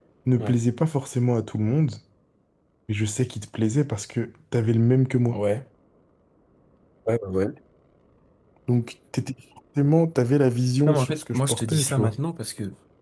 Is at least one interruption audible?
Yes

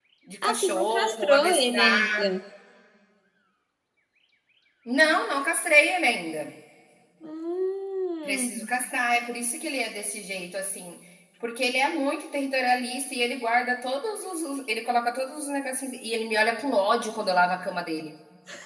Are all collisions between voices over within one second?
No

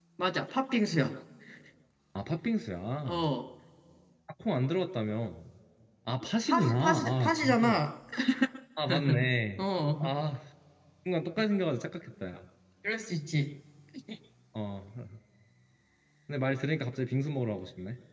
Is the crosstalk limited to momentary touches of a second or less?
No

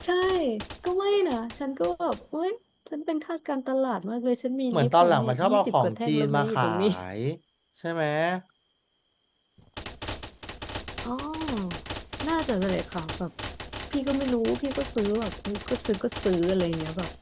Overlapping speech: Yes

